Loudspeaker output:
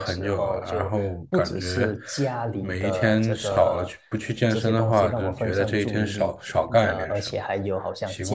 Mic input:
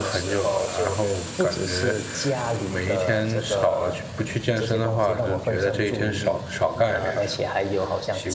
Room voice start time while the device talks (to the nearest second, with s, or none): none